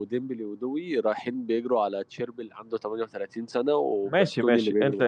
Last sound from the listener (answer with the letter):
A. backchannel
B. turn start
B